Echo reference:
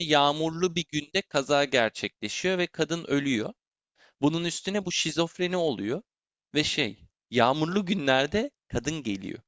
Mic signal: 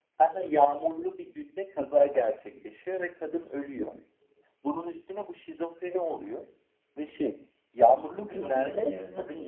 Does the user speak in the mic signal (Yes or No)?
Yes